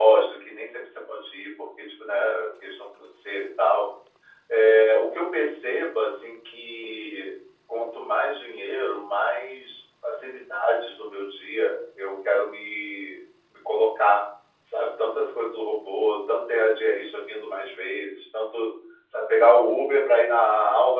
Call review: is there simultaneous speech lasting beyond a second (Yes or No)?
No